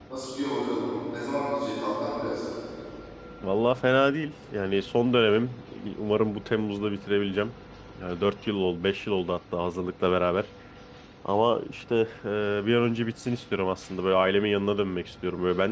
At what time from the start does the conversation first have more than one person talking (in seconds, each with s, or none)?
none